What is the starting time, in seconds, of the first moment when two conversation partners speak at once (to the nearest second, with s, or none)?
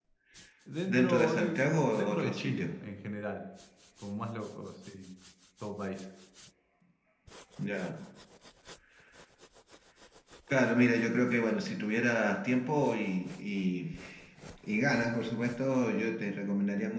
1 s